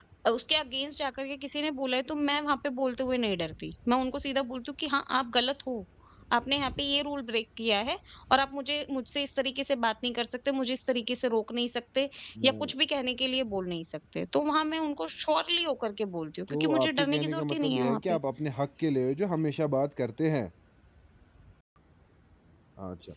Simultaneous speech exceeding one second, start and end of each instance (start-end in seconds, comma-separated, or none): 16.5-18.2